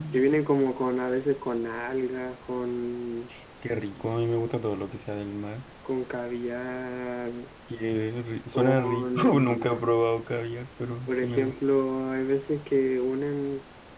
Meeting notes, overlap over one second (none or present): present